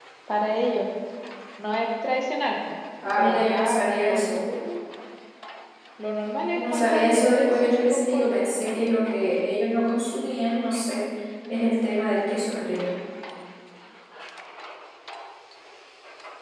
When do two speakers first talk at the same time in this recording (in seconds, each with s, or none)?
3.2 s